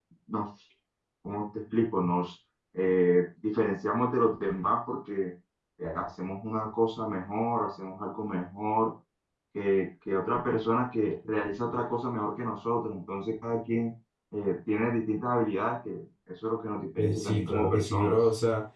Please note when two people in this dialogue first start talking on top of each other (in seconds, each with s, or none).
17.0 s